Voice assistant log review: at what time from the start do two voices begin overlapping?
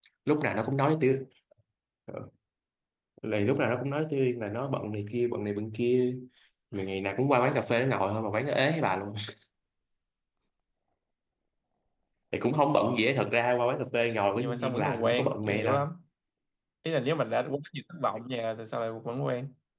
14.3 s

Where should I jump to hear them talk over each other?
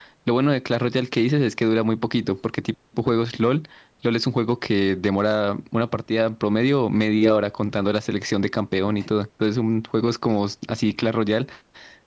none

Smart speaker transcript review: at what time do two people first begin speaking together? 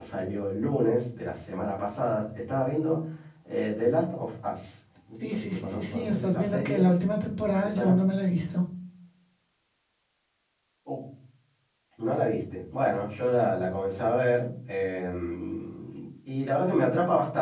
5.2 s

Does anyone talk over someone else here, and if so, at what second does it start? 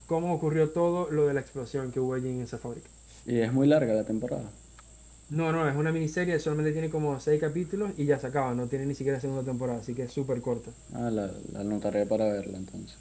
none

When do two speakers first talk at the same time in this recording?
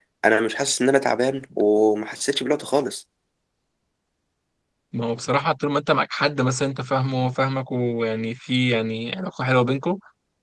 none

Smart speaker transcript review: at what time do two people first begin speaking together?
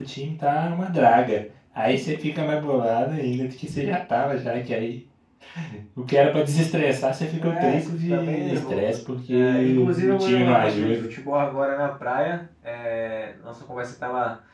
7.4 s

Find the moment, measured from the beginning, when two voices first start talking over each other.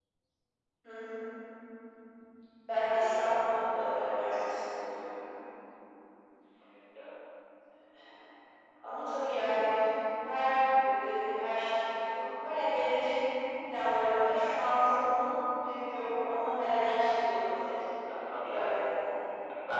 3.5 s

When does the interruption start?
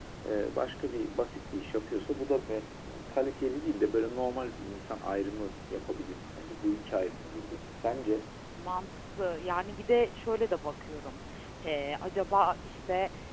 none

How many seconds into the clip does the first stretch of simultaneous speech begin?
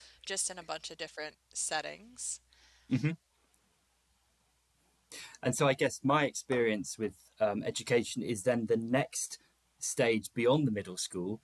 none

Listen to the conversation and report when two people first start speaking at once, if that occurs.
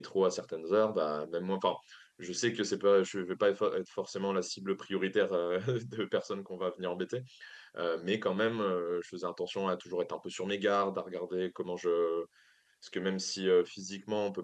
none

